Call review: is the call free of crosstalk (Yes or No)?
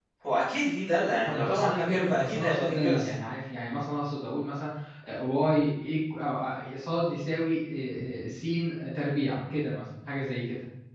No